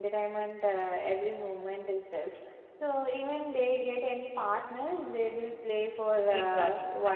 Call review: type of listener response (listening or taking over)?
taking over